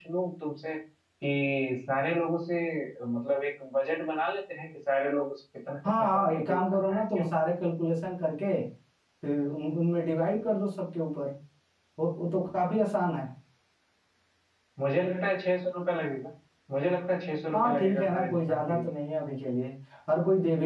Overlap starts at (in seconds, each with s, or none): 6.0 s